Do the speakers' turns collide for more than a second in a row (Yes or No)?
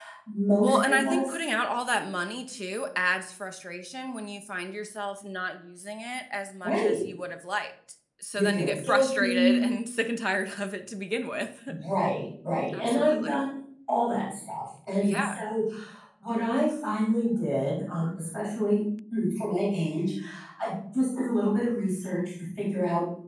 Yes